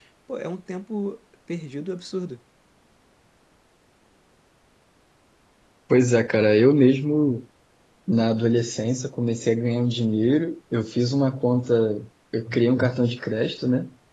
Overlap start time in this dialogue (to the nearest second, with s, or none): none